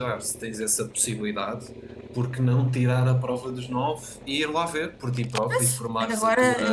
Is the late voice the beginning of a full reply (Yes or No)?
Yes